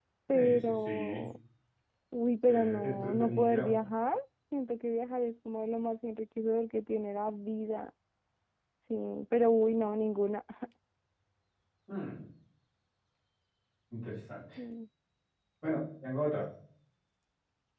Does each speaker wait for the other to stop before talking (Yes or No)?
No